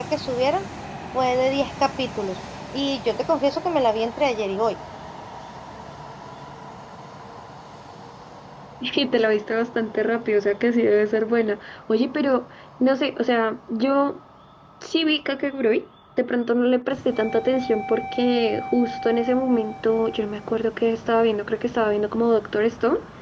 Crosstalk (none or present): none